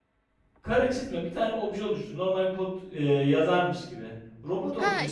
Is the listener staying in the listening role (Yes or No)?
No